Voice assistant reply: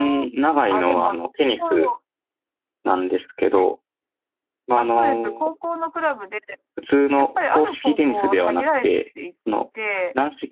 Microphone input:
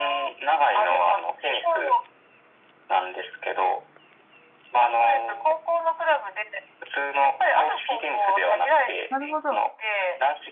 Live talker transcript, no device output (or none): なるほど。